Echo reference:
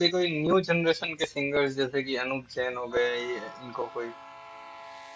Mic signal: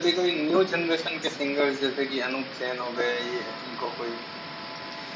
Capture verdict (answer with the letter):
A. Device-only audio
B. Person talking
A